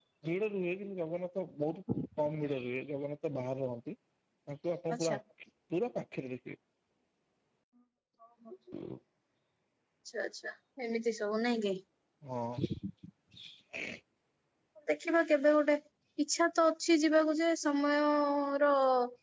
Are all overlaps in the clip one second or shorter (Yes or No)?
Yes